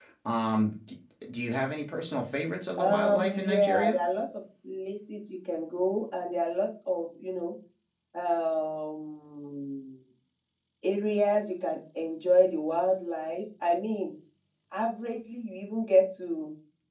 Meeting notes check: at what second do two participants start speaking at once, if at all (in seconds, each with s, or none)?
2.8 s